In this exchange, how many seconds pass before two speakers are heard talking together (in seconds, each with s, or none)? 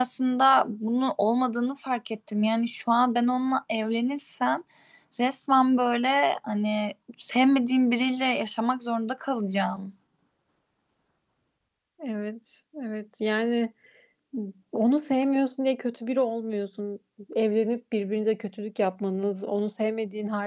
none